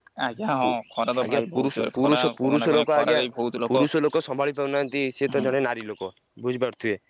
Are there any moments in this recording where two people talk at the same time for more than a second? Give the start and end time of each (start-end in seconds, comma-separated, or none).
1.2-3.2